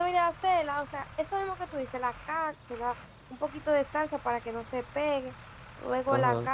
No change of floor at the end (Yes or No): No